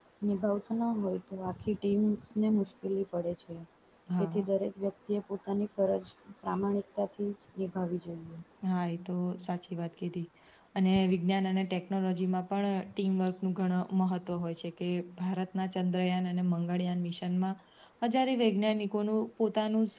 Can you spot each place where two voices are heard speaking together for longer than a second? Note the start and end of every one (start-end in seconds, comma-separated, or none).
none